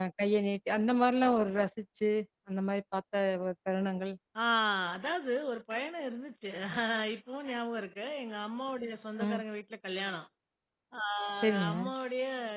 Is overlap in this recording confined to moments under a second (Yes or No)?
Yes